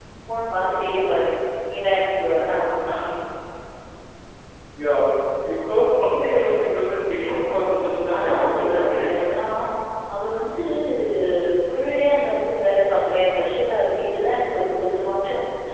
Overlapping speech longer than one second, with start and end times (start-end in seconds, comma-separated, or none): 8.1-9.4